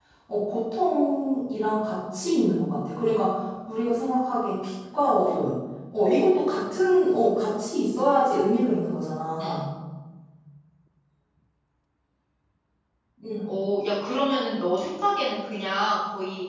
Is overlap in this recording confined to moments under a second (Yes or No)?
Yes